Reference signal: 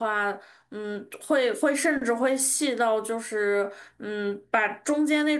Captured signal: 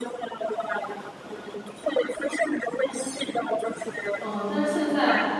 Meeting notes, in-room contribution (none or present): present